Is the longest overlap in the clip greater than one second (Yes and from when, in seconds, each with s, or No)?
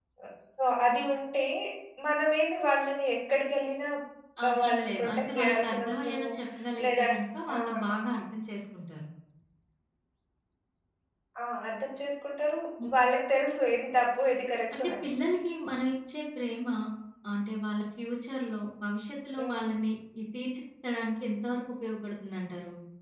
Yes, from 4.5 s